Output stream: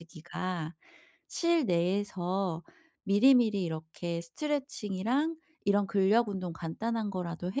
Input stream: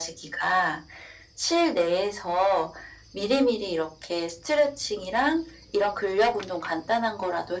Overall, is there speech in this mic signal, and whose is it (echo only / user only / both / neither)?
echo only